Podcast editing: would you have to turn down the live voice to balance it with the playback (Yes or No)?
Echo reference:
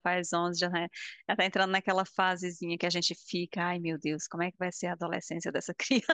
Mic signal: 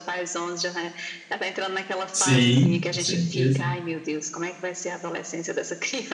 Yes